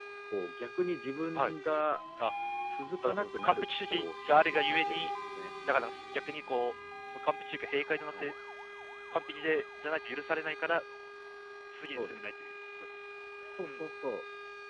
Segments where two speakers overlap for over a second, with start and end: 3.0-5.1

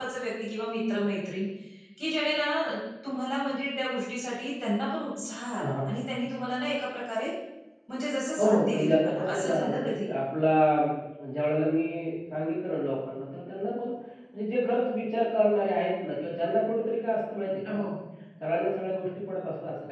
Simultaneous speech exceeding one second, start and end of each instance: 8.4-10.1

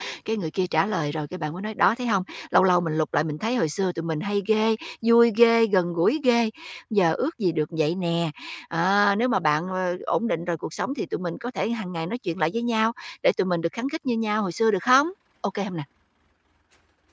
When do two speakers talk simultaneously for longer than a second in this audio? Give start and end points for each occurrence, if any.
none

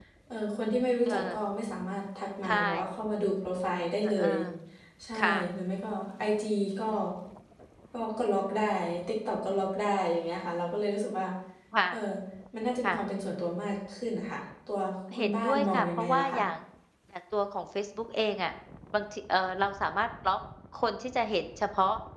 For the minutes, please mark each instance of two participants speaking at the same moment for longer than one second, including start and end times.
15.2-16.4

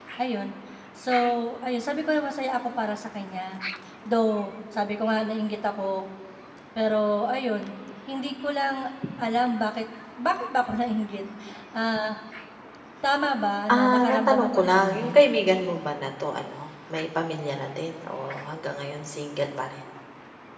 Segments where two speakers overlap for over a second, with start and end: 13.7-15.1

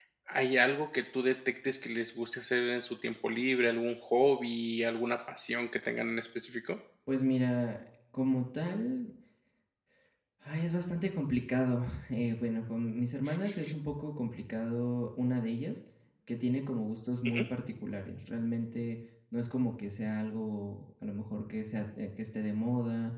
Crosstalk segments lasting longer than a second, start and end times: none

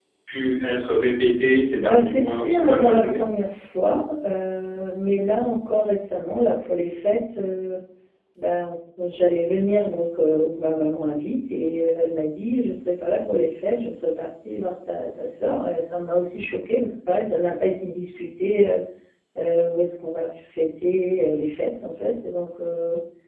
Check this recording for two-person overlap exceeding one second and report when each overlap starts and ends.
1.8-3.2

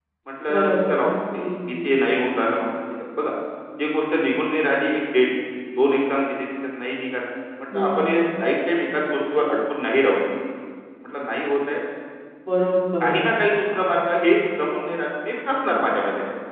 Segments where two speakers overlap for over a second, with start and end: 0.5-1.8

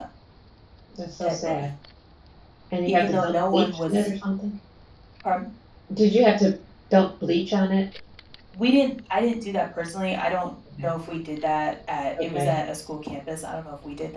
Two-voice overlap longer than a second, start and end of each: 2.9-4.1

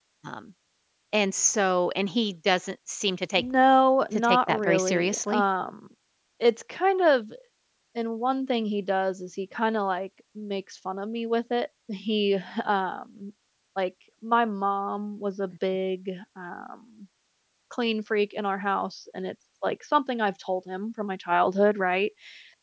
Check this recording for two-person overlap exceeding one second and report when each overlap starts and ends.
4.1-5.4

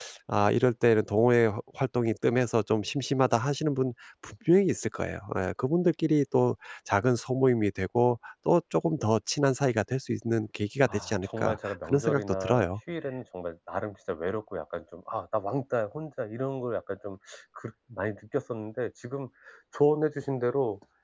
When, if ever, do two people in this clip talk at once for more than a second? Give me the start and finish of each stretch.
10.9-12.7

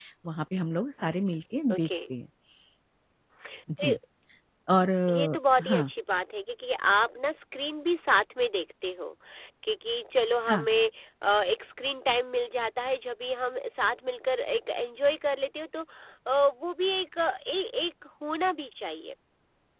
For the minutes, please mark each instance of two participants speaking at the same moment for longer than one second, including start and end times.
none

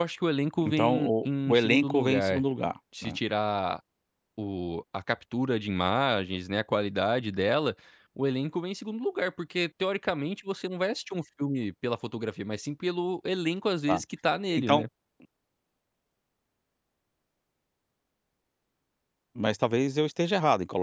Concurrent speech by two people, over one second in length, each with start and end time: 0.6-2.4

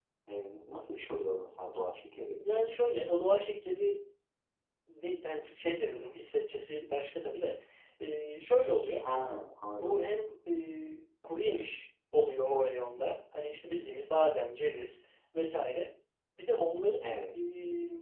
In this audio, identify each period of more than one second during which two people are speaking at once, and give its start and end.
none

